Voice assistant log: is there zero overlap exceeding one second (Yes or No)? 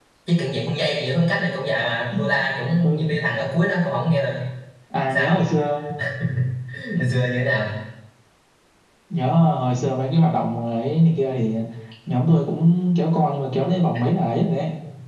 Yes